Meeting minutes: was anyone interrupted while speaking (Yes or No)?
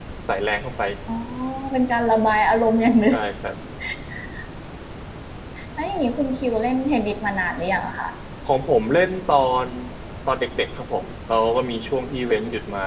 No